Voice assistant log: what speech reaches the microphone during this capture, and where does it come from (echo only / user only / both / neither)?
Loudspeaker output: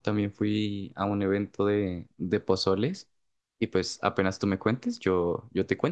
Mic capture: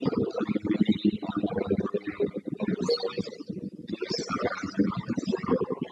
echo only